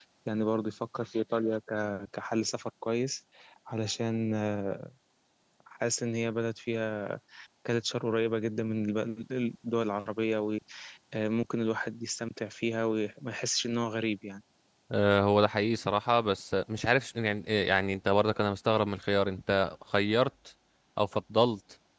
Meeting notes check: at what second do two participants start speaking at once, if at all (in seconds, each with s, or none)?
none